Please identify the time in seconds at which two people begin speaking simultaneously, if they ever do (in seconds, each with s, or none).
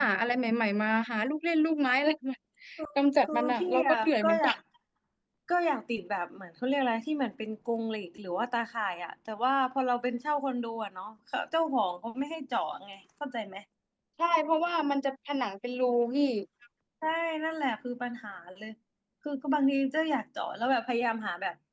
3.2 s